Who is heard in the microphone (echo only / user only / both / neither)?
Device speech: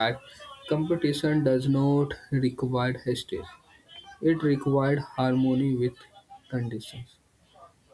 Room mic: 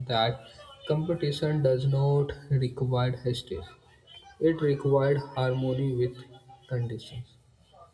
echo only